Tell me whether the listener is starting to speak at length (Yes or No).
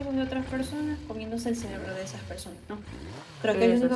No